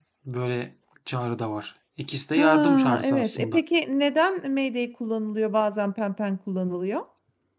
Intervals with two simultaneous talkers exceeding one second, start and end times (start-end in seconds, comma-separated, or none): 2.4-3.6